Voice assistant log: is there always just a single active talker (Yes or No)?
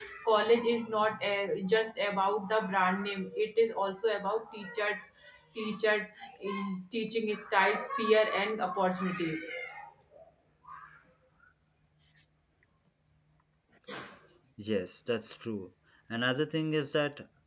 Yes